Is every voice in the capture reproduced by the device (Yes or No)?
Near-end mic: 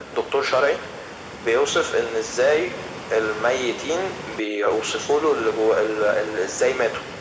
Yes